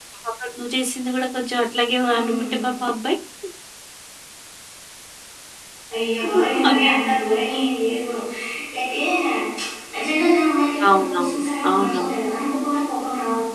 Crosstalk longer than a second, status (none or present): present